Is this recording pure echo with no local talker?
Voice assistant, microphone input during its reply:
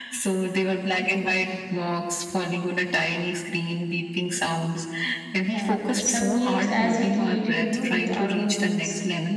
No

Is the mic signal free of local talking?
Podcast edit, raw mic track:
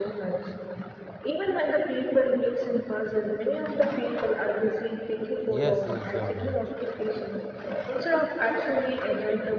No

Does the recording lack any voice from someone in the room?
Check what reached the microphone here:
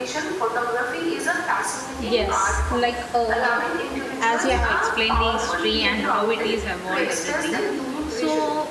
No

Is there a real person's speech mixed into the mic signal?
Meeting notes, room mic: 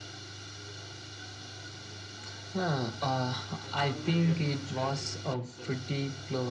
Yes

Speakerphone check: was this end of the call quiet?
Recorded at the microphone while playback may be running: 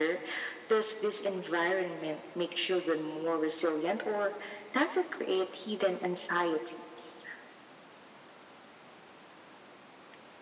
Yes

